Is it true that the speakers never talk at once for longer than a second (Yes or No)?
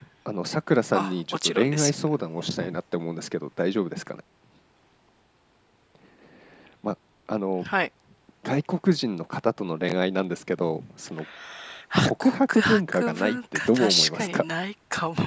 No